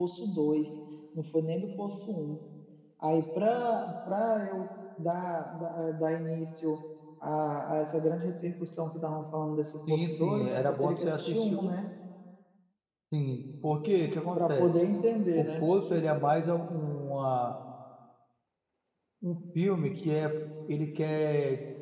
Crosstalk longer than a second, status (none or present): present